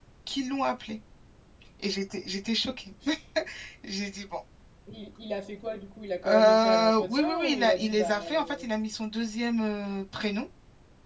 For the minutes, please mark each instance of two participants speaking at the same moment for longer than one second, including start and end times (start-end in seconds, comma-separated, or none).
6.3-8.7